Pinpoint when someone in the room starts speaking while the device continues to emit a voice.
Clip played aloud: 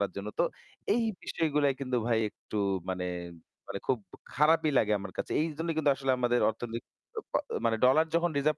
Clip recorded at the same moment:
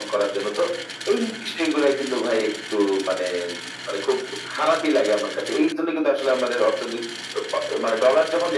none

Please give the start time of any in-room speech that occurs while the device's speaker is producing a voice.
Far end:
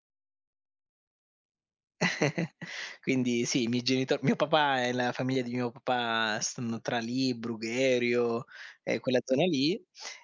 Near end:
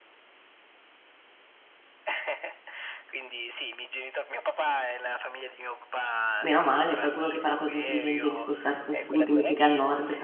6.4 s

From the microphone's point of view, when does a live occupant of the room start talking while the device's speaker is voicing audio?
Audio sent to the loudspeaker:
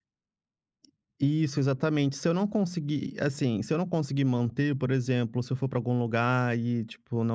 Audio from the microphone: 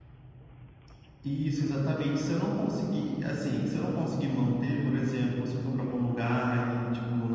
none

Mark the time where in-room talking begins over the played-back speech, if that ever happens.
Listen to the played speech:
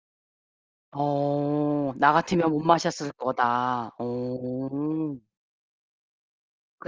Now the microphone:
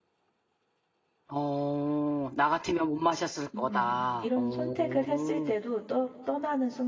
3.5 s

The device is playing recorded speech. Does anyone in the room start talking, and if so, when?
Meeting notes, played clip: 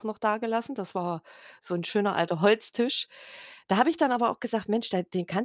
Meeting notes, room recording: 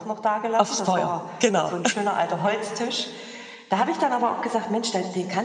0.6 s

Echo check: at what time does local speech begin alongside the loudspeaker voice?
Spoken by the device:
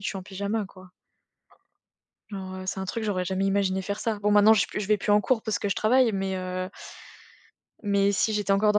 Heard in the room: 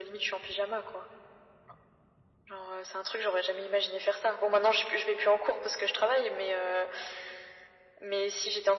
none

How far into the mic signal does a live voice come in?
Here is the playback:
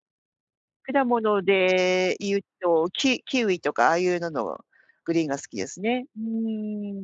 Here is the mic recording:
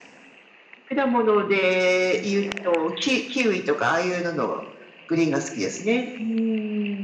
none

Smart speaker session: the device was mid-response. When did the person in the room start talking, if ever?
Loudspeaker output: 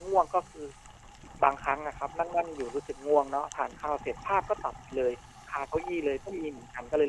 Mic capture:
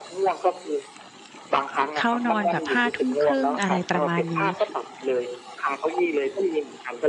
2.0 s

